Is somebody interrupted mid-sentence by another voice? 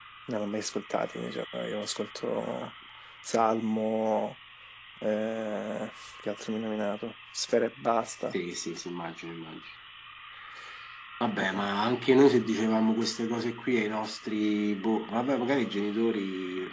No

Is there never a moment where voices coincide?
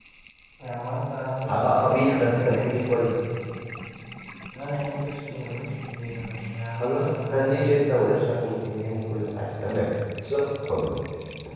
No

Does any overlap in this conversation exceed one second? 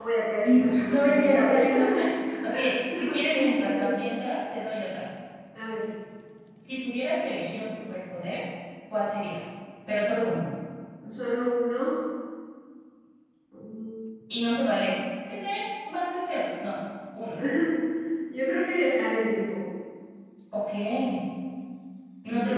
Yes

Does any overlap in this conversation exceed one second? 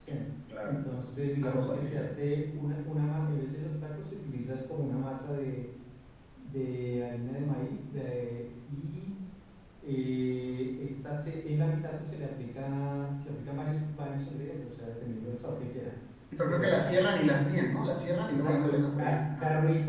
Yes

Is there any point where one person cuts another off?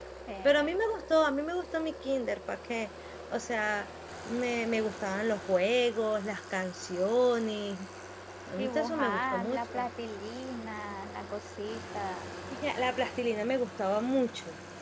Yes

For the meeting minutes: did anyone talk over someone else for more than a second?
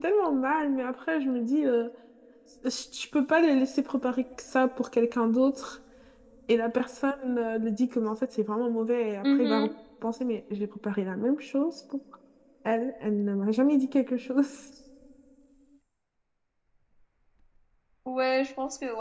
No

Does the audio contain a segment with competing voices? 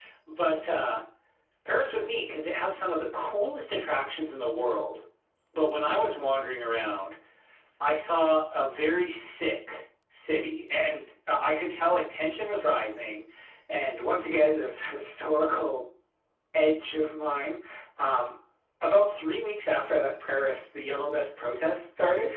No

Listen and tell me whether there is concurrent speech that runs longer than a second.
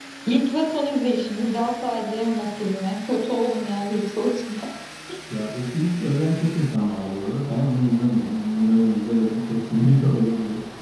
No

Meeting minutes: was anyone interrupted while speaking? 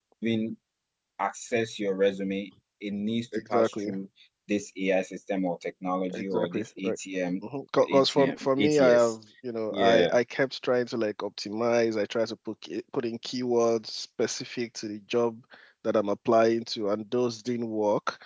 Yes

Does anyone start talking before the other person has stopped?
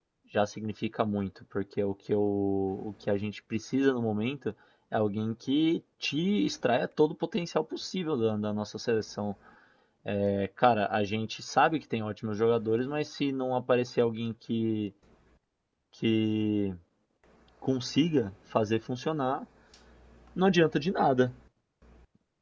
No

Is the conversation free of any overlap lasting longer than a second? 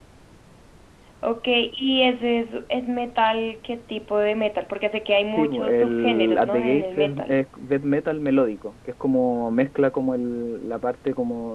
No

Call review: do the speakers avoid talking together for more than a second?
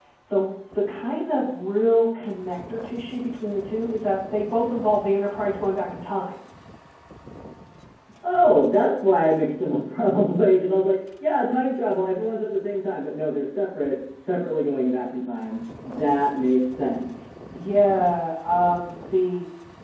Yes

